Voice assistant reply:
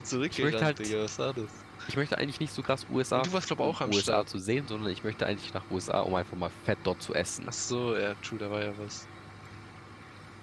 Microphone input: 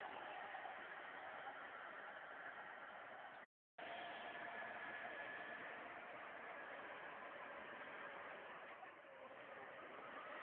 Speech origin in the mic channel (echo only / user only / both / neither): neither